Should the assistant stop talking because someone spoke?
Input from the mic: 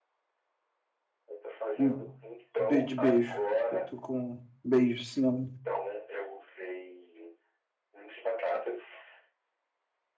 Yes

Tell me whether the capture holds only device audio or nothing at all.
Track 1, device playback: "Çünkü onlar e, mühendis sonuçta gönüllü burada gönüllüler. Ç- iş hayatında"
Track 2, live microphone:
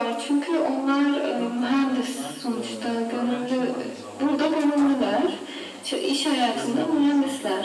No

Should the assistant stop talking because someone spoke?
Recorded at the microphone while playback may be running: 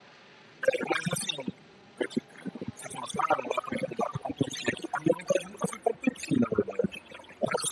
No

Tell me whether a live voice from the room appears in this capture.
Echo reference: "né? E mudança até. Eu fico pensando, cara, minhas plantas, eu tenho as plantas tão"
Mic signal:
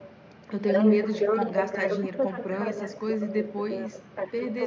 Yes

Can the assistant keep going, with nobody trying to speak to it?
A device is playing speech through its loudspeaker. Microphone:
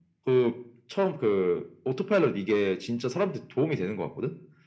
Yes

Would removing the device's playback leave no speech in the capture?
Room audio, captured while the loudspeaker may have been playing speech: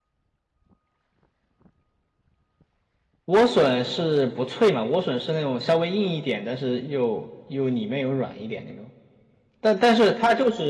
No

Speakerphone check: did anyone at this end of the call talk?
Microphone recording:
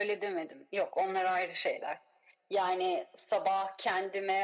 No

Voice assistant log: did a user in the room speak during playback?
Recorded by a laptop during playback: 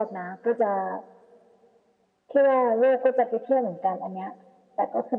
No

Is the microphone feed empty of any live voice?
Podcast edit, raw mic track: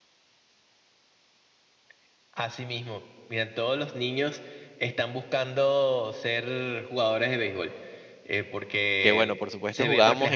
No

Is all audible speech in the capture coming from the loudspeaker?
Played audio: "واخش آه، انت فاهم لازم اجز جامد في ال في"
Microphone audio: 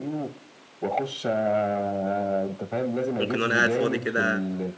No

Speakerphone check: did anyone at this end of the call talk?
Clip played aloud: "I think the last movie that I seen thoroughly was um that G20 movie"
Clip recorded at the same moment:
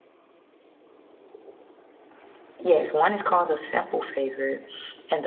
Yes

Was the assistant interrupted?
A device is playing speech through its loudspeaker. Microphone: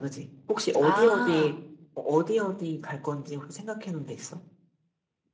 Yes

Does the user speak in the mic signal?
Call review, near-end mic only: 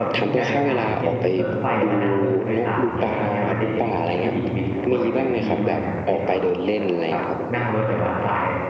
Yes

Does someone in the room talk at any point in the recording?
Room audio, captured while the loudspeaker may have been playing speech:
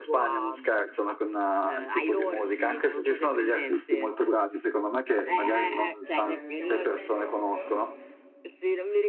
Yes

